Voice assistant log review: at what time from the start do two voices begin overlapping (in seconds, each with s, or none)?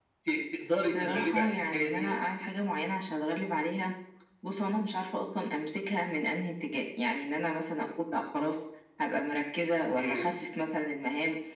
0.9 s